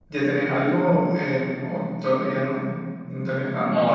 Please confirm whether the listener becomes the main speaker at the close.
Yes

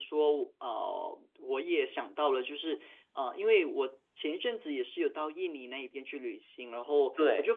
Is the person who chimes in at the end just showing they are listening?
Yes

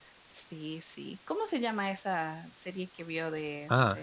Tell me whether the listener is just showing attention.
No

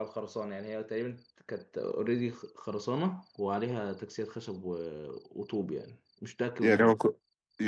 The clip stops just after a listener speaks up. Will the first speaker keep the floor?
No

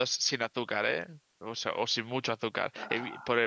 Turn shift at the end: No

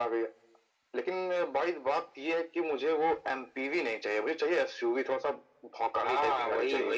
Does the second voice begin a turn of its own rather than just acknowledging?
Yes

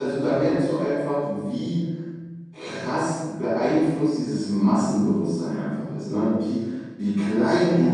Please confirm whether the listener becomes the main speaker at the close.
No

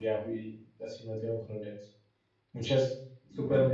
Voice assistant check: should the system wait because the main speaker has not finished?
Yes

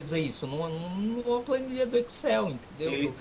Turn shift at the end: Yes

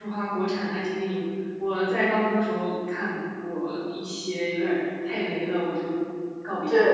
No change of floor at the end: No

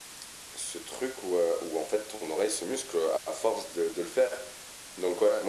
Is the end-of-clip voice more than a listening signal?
No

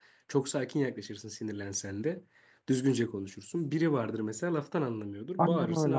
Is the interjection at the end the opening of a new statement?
Yes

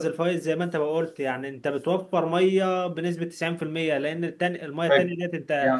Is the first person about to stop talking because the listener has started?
Yes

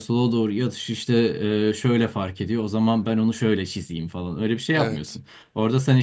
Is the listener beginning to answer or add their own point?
No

